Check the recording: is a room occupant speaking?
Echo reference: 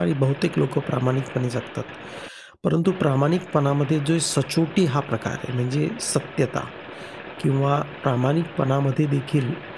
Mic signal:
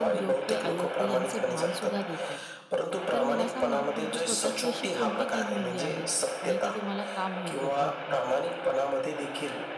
Yes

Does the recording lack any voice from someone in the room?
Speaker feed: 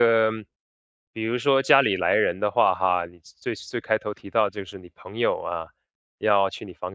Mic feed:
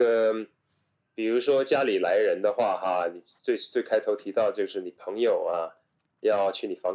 Yes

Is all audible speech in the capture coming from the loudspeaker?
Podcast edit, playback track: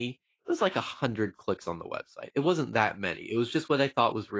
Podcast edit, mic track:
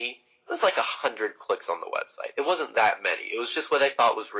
Yes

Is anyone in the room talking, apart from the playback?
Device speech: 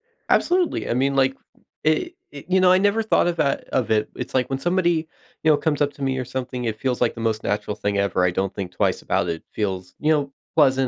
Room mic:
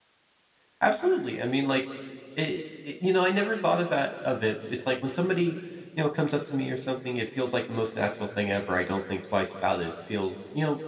No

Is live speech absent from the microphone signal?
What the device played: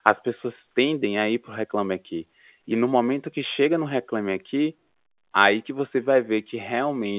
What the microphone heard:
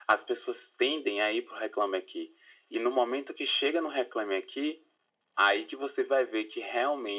Yes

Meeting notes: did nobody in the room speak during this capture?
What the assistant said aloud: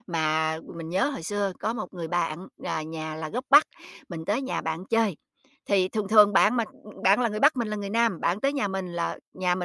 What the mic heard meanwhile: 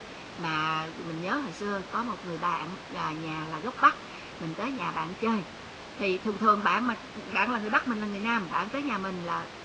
Yes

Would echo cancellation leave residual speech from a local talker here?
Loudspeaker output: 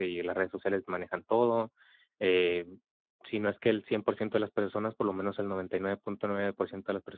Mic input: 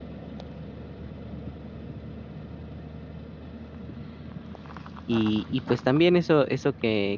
Yes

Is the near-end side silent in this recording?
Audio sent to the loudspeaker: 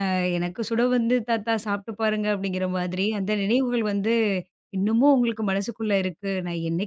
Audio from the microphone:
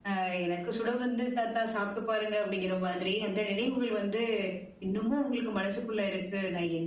No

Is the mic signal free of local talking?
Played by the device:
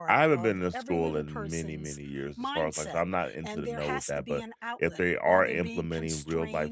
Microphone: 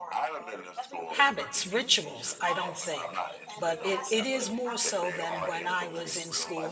No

